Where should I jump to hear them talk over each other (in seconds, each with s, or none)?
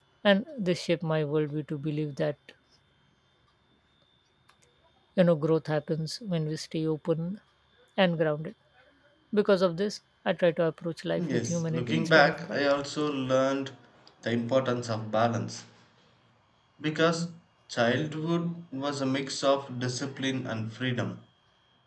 11.2 s